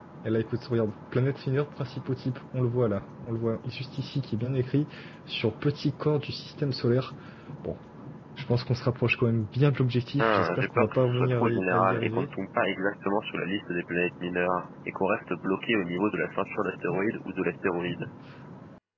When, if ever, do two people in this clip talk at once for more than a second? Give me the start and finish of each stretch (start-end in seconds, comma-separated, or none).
10.2-12.3